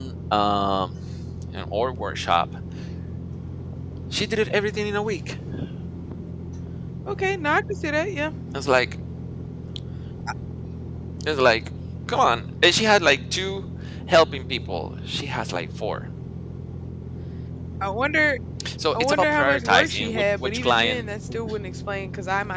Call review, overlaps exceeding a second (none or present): present